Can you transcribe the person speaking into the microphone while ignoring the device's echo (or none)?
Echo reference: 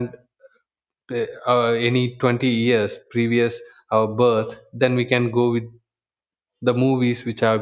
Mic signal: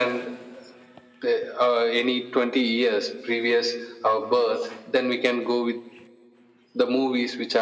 none